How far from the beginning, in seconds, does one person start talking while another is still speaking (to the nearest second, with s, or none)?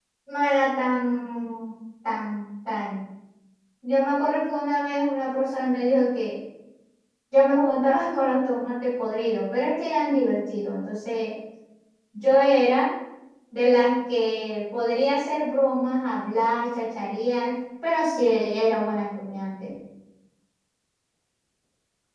none